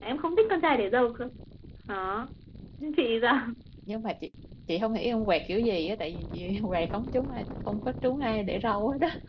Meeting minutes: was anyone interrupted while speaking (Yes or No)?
No